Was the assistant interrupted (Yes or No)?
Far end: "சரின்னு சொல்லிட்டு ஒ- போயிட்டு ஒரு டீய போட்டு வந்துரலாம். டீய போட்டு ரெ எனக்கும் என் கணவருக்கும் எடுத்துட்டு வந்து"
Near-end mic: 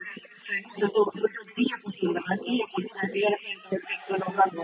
No